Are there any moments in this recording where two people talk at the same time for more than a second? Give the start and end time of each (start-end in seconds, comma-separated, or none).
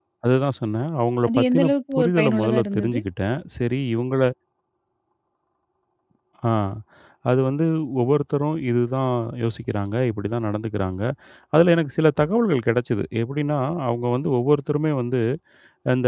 1.3-3.0